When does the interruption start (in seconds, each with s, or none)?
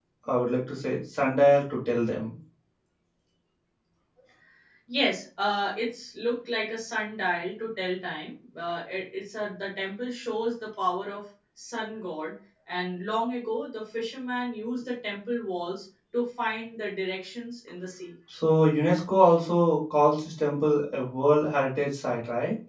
none